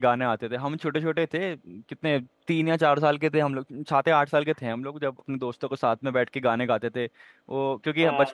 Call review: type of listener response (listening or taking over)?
listening